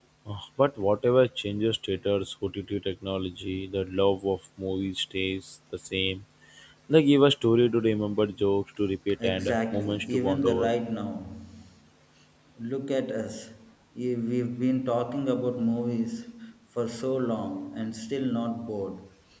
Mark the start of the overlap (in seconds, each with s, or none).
9.2 s